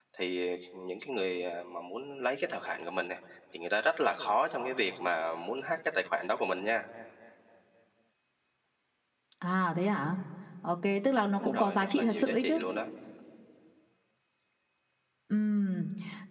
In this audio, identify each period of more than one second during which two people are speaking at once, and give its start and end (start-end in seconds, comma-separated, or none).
11.4-12.6